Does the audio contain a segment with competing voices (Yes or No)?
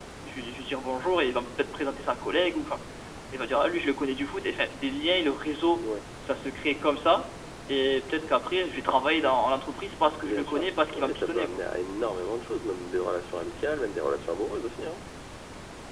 Yes